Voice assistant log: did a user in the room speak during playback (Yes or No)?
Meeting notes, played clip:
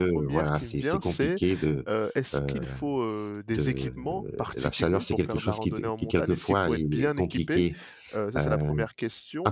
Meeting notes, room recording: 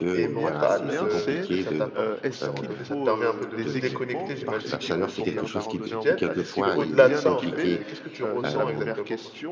Yes